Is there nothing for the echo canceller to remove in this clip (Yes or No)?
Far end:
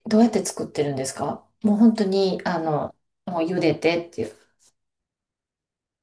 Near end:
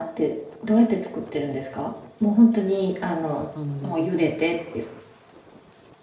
No